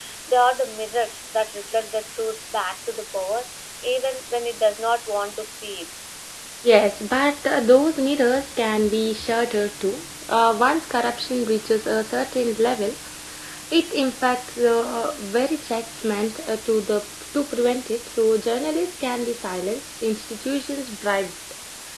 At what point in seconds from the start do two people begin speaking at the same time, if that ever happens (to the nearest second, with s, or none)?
none